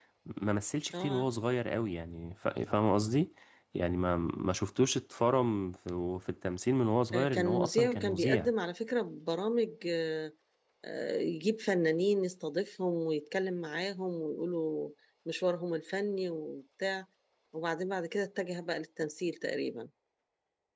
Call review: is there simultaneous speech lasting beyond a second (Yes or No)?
Yes